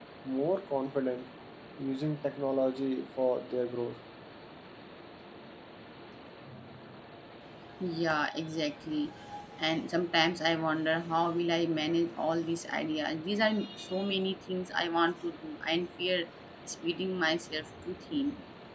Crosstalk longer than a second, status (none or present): none